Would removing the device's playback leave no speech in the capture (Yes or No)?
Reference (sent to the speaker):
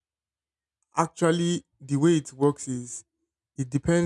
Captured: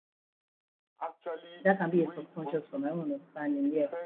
No